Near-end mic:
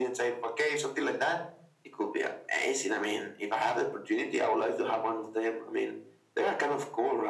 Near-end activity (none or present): none